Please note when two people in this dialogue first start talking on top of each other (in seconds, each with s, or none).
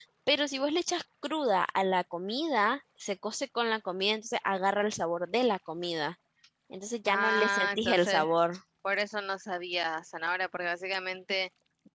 7.0 s